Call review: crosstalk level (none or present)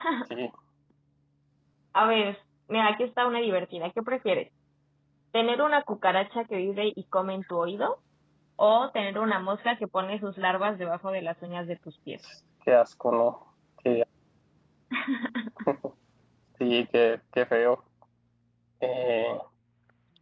none